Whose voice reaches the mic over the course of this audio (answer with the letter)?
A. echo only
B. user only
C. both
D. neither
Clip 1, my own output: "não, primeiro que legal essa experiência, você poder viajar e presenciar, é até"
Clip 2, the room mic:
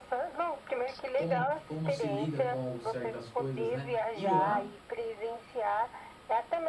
C